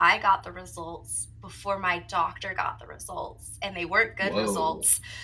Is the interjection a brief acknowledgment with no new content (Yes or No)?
Yes